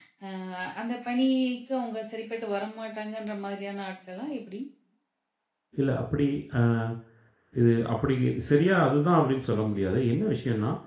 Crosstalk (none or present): none